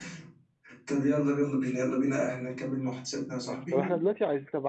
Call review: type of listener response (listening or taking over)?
taking over